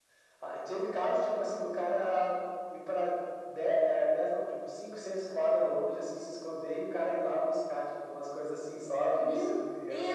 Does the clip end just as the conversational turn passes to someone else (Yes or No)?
Yes